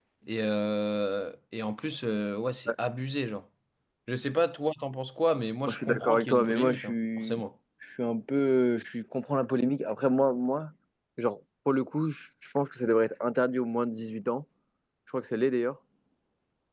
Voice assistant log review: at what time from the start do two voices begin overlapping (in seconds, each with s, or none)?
5.7 s